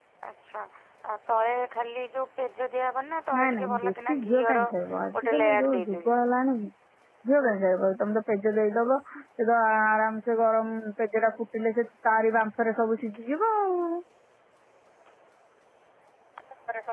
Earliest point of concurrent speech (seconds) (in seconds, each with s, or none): 3.3 s